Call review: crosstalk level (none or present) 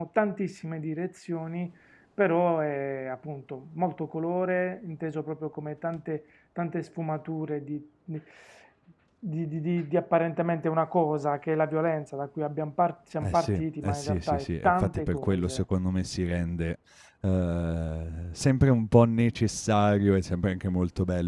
present